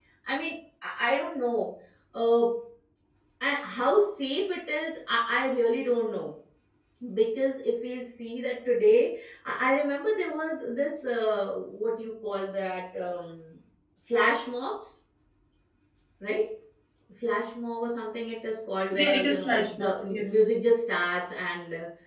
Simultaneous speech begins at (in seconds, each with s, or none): 18.9 s